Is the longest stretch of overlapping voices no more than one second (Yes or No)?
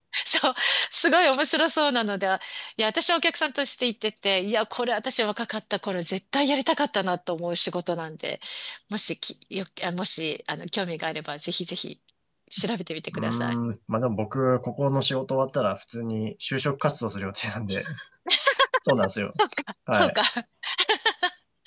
Yes